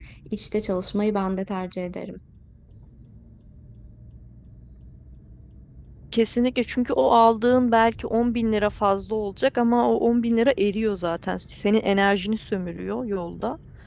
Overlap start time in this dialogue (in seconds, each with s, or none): none